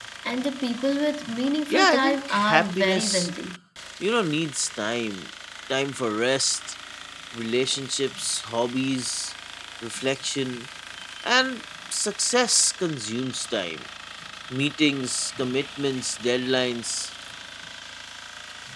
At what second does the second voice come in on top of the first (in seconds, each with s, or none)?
1.7 s